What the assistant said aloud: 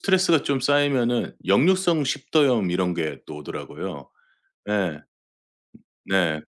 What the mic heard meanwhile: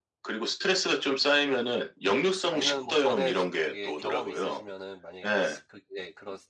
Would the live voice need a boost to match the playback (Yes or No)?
Yes